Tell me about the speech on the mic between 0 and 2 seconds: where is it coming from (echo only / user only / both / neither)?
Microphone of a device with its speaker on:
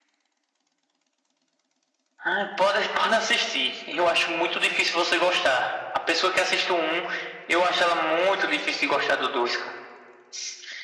neither